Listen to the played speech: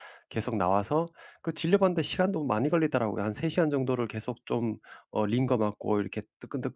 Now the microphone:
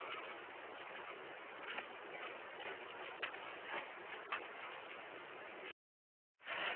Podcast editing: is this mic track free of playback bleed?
Yes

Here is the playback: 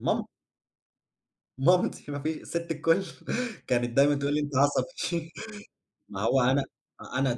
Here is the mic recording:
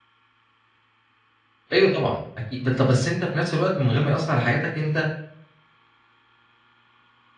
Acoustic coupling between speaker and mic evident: No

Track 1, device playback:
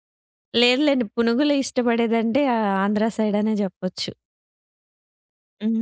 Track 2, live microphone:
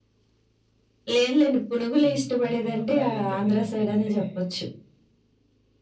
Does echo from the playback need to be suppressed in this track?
Yes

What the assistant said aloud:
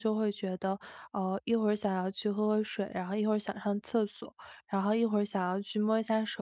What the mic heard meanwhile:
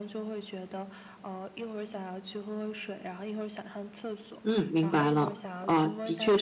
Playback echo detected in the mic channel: Yes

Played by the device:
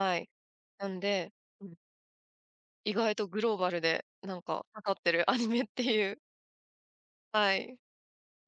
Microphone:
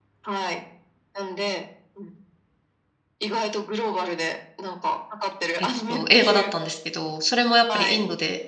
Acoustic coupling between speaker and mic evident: Yes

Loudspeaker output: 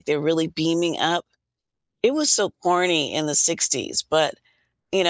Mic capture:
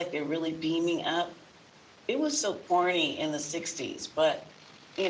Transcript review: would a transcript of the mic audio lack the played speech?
No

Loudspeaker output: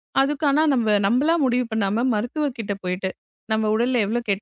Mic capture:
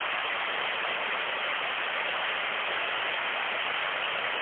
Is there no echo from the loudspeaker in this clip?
Yes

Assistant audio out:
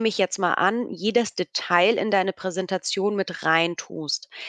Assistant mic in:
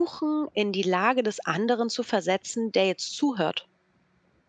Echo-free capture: Yes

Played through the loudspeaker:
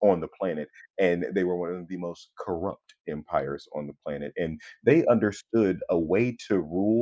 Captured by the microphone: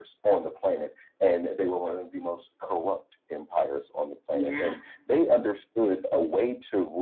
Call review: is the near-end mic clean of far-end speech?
No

